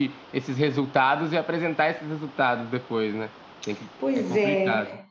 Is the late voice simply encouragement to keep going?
No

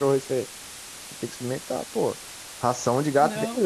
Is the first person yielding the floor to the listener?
No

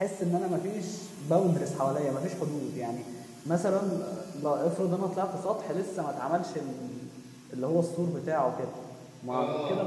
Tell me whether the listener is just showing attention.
Yes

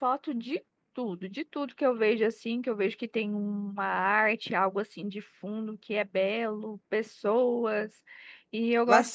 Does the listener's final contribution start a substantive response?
Yes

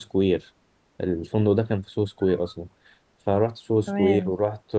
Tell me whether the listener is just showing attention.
Yes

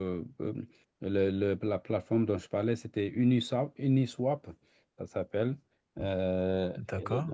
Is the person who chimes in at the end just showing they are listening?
No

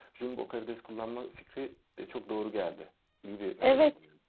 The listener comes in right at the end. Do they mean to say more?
Yes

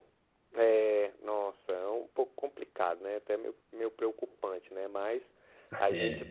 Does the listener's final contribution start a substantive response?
No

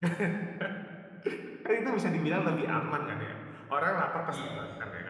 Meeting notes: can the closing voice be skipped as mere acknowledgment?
Yes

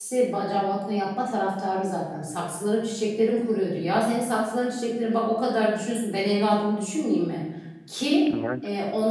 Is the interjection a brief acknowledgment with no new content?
Yes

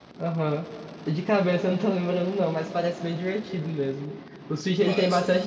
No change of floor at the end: Yes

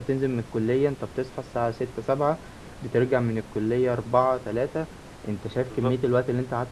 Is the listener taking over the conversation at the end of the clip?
No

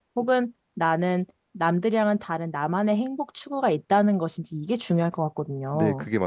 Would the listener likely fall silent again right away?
No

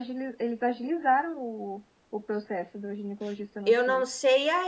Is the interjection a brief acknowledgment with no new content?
No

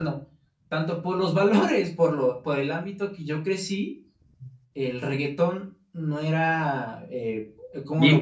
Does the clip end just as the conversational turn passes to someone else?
No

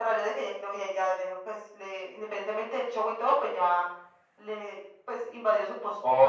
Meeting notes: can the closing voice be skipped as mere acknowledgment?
No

